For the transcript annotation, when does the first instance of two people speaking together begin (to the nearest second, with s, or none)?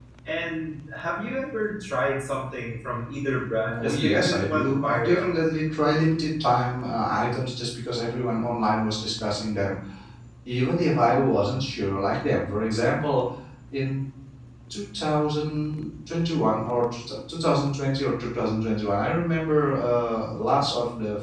4 s